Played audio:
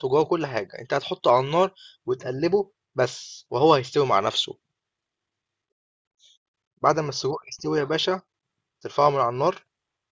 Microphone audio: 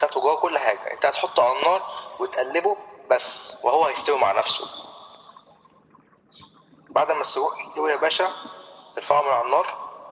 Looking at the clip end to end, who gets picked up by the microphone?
echo only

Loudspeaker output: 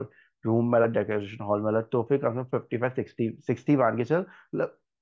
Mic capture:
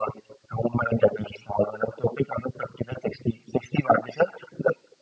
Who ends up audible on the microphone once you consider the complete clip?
echo only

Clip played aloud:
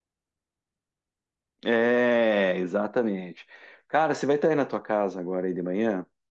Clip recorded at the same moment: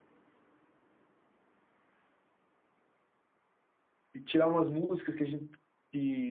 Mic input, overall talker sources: user only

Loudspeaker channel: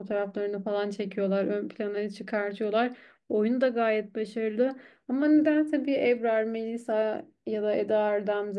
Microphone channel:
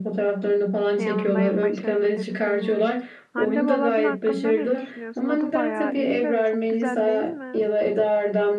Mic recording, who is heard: both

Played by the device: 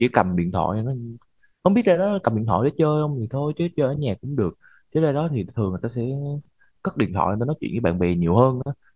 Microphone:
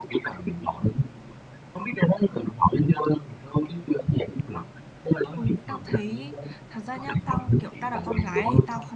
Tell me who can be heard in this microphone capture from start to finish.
both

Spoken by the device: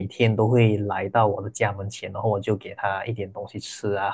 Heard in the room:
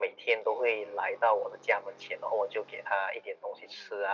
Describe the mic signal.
echo only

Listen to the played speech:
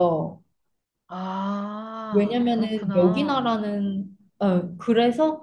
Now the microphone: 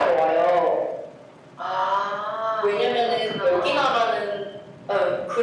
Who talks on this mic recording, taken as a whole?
echo only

